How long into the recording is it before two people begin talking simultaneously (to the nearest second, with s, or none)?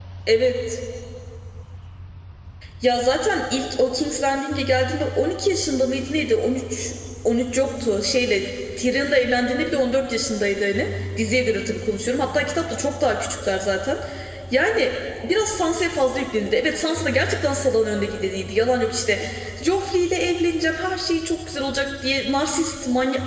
none